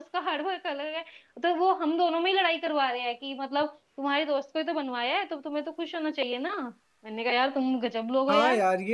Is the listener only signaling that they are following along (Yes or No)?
No